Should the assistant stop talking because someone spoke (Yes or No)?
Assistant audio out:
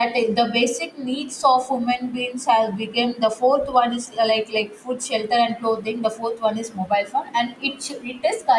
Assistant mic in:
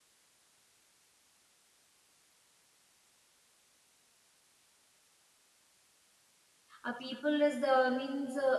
Yes